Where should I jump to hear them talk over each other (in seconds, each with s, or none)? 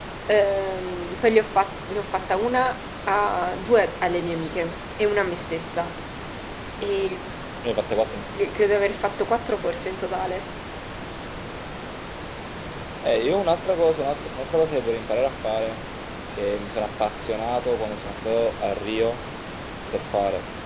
none